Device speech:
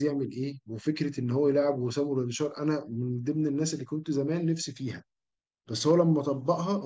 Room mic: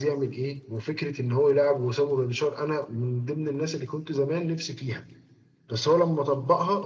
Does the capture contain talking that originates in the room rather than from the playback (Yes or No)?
No